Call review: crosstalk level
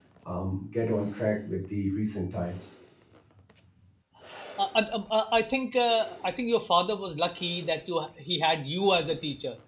none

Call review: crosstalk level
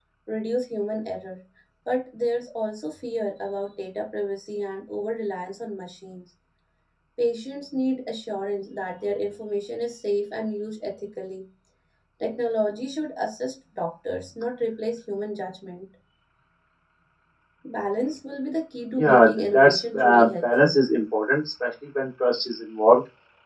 present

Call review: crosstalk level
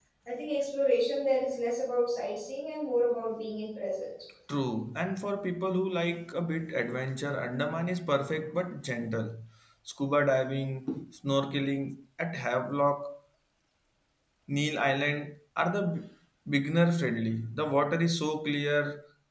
none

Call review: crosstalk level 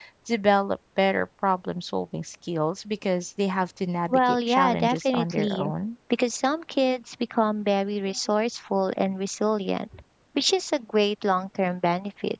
present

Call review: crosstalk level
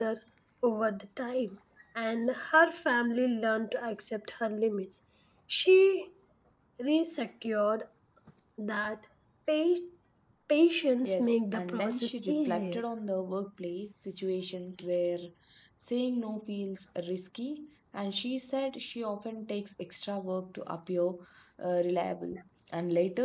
present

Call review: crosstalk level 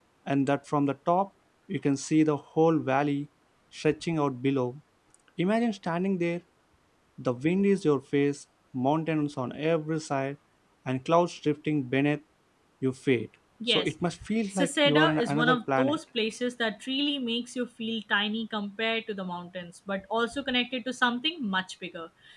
present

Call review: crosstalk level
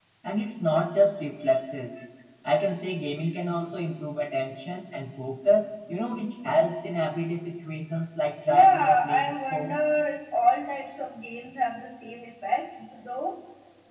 present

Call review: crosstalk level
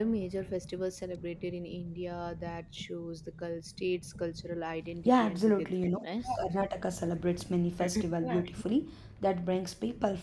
present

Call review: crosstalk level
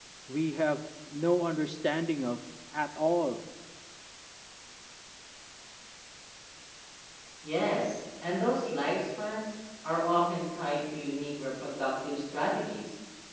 none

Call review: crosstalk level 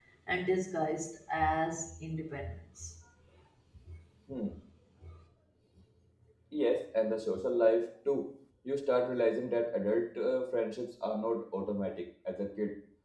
none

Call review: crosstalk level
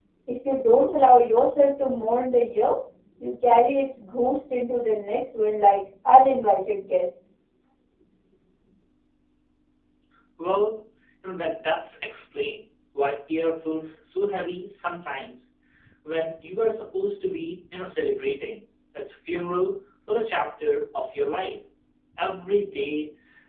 none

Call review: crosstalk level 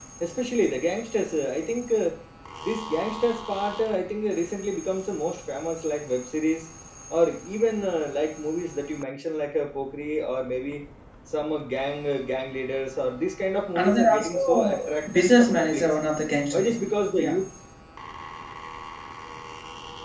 present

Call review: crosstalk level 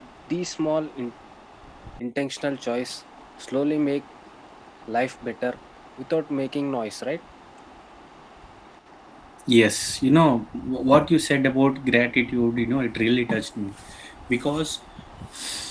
none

